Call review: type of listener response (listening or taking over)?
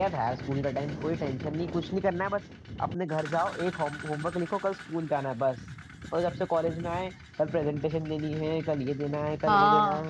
taking over